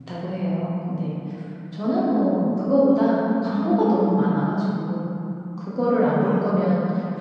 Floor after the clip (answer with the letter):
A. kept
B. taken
A